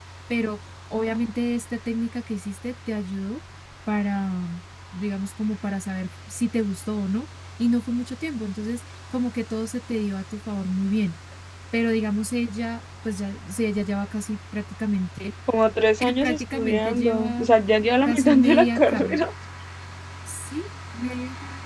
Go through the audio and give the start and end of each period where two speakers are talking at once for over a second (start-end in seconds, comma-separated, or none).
16.2-17.5, 18.0-19.3